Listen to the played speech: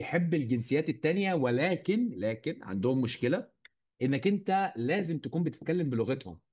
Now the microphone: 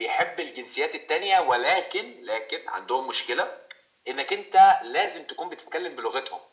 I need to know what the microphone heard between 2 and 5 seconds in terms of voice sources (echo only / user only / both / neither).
echo only